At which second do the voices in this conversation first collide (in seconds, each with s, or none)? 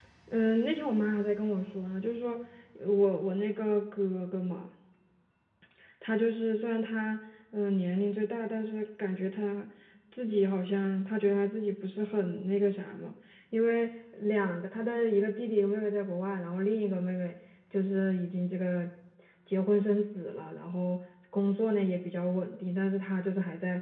none